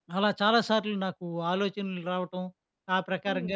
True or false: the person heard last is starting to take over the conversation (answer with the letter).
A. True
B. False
B